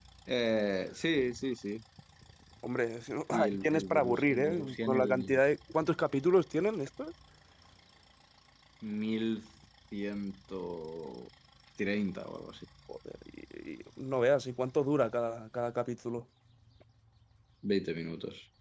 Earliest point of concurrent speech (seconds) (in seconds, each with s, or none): 3.3 s